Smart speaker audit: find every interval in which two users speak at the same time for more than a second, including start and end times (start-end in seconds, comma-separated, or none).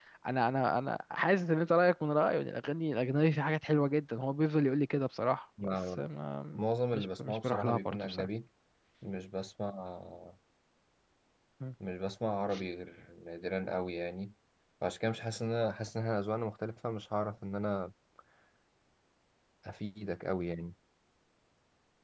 6.9-8.3